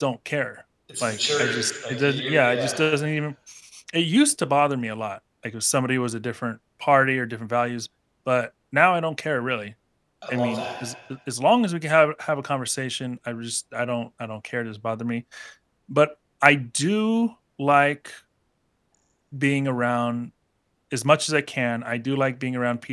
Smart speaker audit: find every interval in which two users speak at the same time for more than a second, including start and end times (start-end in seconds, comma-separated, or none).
1.0-2.7